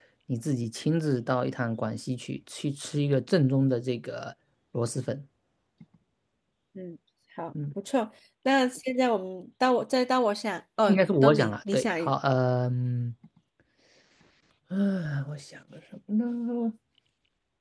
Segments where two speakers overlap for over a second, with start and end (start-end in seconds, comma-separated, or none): 10.9-12.1